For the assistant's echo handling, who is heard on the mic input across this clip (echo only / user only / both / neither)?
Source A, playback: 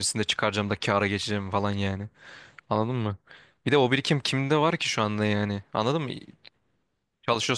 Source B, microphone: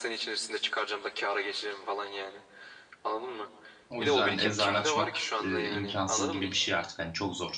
both